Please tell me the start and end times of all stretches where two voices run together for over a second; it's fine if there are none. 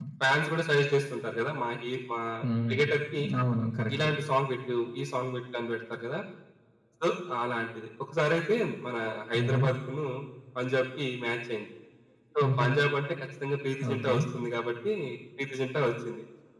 none

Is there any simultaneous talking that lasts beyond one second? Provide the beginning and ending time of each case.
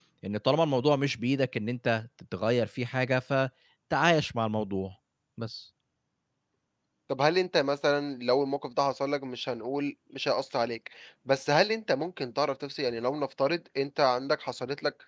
none

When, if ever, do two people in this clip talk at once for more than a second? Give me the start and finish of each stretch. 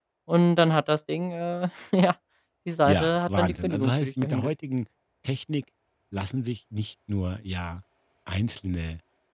2.8-4.5

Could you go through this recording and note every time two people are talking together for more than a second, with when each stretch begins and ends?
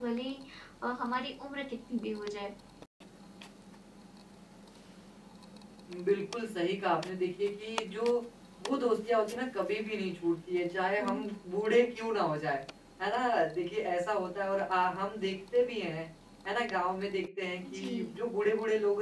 none

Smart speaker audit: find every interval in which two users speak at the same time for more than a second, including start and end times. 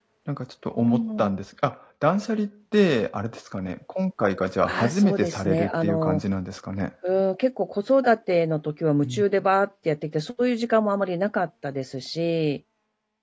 4.7-6.2

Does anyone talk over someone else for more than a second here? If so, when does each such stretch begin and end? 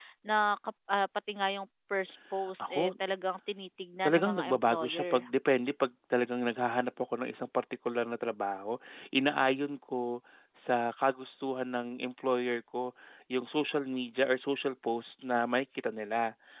4.0-5.2

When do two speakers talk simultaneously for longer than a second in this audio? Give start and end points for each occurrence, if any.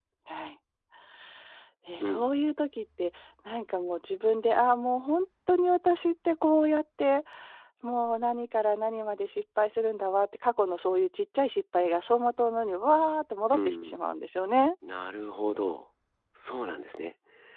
none

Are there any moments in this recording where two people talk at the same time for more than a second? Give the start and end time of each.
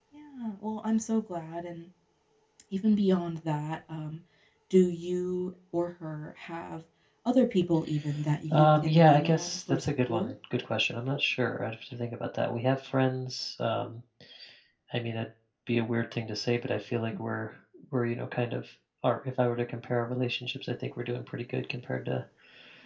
8.5-10.3

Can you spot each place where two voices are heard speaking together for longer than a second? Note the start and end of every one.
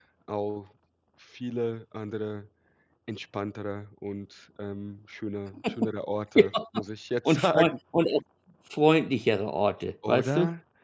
none

